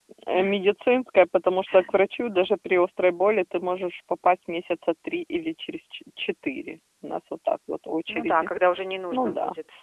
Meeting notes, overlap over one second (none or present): none